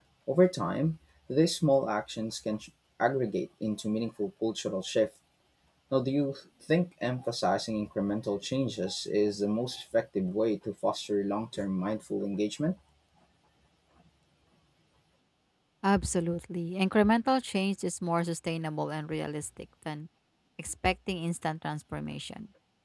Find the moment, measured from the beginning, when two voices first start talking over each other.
none

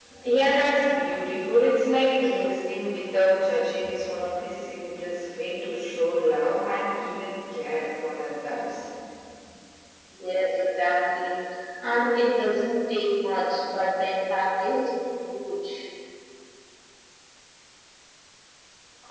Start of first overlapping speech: none

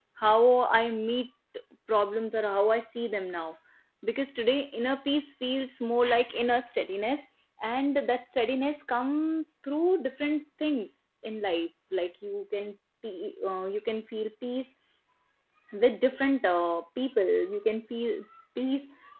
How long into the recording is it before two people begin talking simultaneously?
none

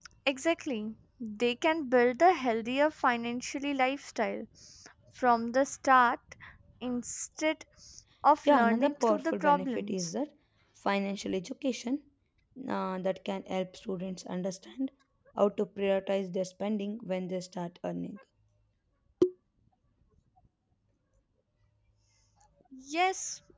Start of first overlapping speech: 8 s

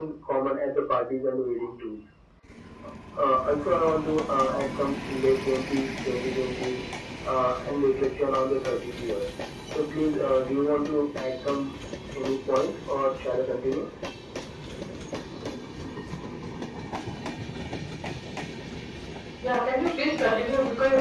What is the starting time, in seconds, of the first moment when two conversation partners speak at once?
none

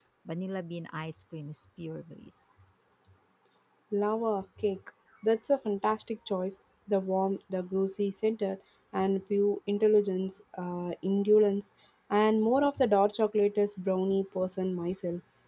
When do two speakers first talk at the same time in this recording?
none

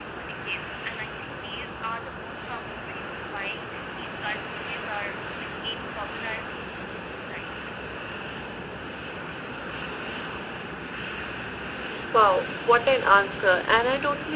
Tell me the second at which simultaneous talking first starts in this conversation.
none

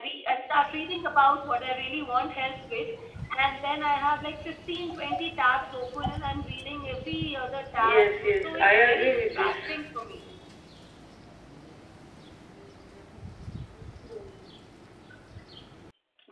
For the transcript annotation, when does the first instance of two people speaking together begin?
8 s

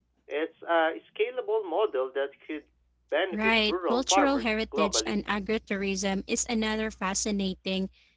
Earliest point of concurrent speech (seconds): 3 s

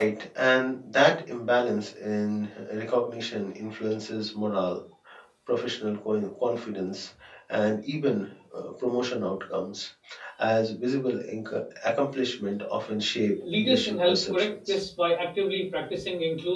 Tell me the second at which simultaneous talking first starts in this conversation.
13 s

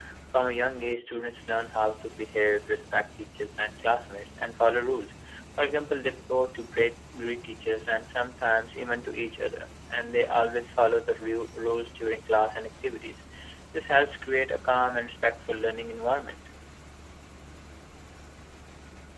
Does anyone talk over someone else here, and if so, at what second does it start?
none

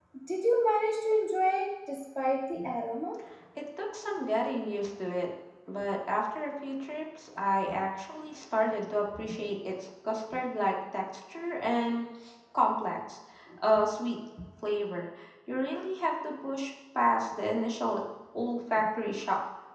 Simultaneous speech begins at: none

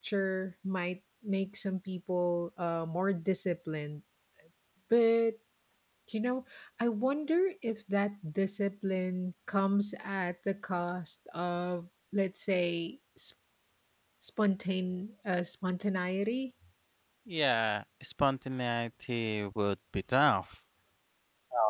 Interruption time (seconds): none

